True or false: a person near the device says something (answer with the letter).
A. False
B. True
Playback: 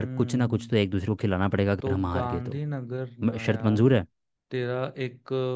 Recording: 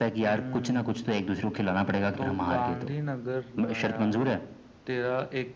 A